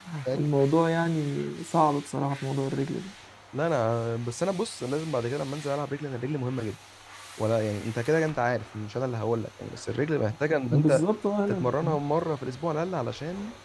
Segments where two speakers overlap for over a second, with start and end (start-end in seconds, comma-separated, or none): none